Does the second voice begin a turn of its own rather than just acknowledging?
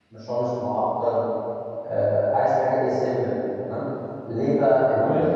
No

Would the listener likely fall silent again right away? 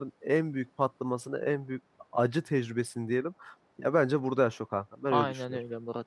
No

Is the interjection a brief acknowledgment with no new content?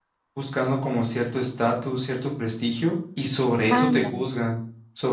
Yes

